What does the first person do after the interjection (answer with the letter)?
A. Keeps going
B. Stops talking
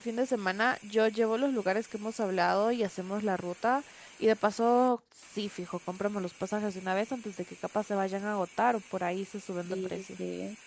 B